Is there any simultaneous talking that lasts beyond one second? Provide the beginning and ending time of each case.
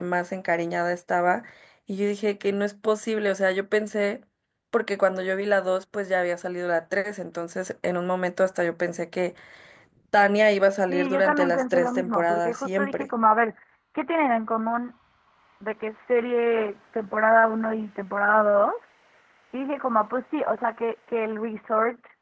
10.9-13.1

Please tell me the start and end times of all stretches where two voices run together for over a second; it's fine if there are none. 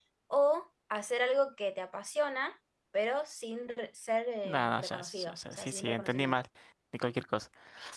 4.5-6.4

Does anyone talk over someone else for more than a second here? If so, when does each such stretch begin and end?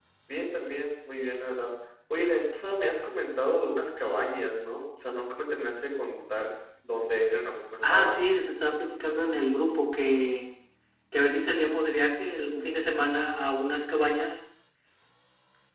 none

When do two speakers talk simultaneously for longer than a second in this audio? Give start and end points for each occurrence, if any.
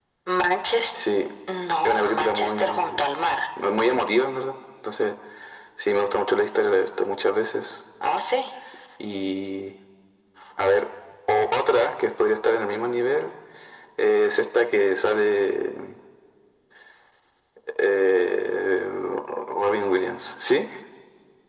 1.8-3.1

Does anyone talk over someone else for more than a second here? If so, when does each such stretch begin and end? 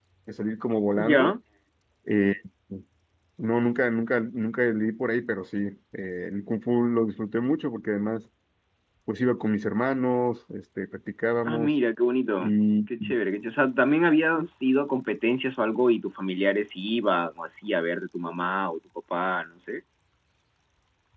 none

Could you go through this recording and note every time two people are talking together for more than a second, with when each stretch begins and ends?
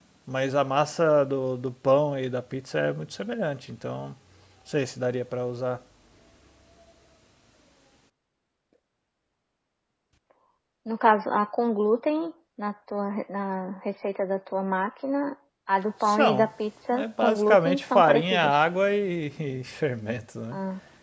17.0-18.5

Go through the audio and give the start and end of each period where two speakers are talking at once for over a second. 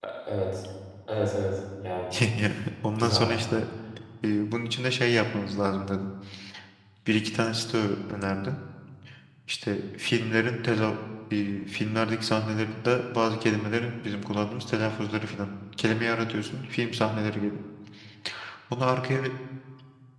none

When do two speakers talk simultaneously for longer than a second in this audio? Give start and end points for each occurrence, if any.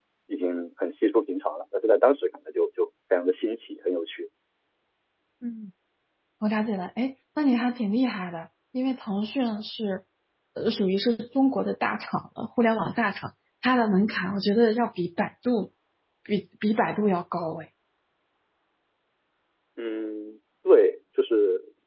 none

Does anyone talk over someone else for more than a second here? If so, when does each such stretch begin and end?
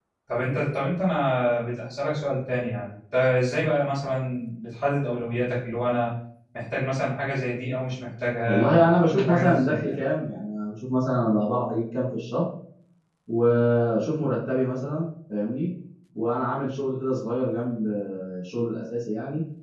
8.4-9.9

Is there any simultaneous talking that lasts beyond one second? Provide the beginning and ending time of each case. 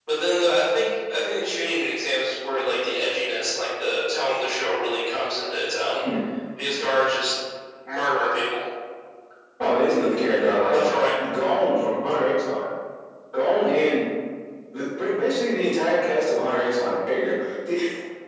none

